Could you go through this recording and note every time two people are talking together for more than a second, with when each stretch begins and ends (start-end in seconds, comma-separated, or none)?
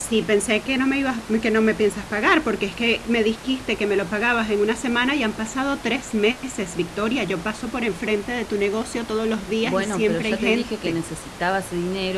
9.6-11.0